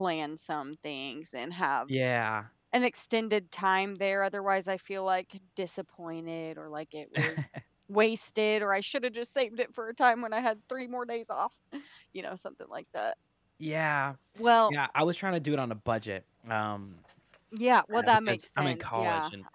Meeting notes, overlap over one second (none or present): present